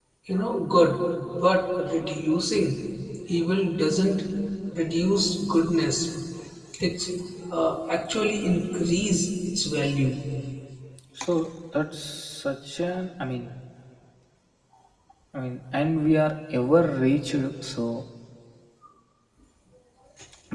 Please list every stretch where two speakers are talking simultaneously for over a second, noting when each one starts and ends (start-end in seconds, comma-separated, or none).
none